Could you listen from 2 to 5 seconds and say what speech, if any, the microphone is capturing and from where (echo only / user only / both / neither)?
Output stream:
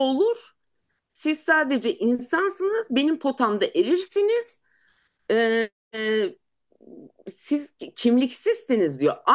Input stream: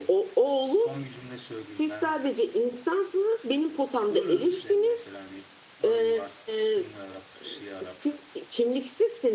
both